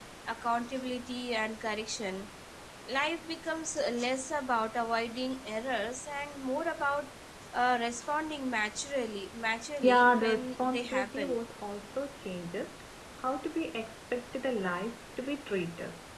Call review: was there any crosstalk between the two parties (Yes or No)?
Yes